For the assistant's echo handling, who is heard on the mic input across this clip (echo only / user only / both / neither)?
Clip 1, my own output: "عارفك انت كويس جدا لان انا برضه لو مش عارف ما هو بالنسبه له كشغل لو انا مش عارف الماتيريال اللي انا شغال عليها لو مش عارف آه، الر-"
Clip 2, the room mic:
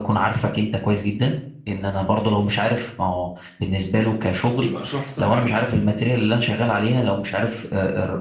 both